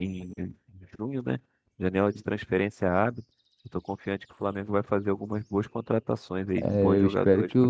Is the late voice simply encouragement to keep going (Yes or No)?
No